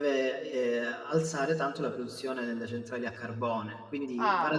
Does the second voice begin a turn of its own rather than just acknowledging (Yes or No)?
No